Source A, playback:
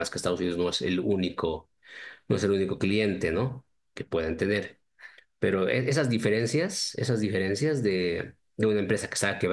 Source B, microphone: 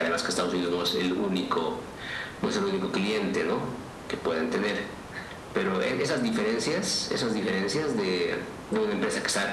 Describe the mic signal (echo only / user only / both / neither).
echo only